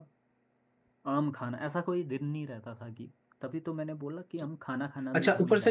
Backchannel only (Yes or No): No